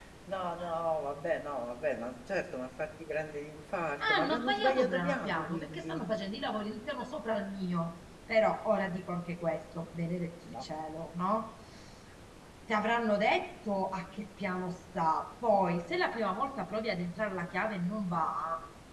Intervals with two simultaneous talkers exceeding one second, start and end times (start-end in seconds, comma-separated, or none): 4.0-6.0